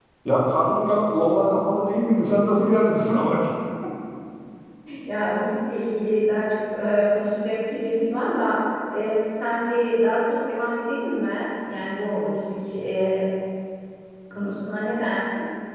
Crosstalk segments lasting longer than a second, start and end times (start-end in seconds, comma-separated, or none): none